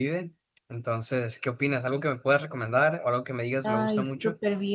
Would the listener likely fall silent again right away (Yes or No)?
No